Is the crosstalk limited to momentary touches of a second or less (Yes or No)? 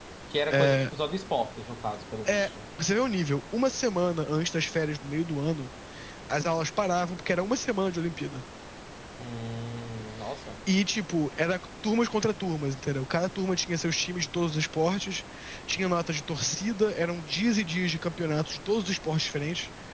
Yes